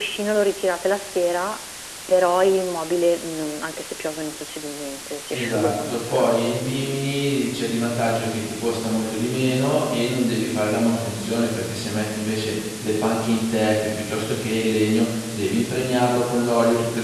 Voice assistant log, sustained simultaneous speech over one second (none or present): present